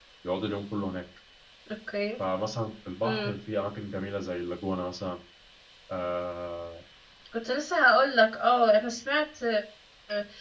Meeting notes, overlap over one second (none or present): none